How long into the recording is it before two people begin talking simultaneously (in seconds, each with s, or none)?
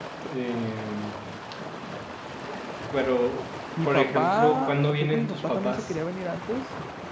3.8 s